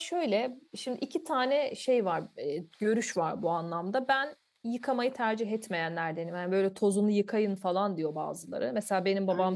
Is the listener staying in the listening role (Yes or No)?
Yes